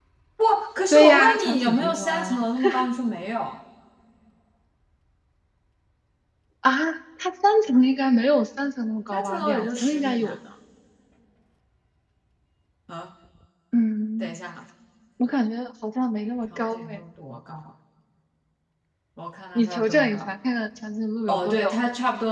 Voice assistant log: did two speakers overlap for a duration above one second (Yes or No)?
Yes